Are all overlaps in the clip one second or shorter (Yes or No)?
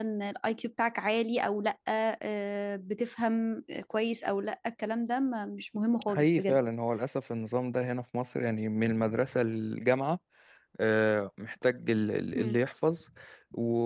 Yes